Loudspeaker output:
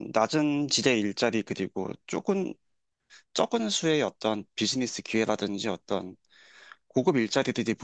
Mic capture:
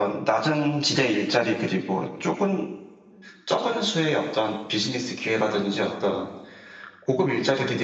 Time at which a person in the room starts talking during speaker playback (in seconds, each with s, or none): none